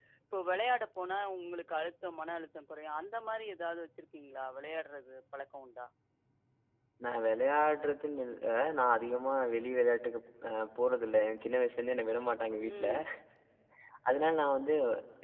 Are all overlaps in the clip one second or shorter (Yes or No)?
Yes